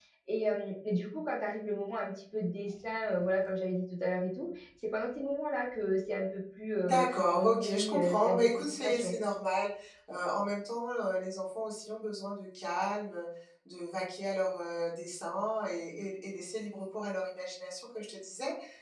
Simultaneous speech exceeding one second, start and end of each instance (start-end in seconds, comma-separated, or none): 6.8-9.2